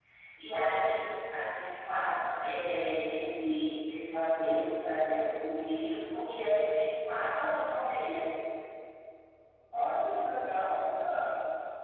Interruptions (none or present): none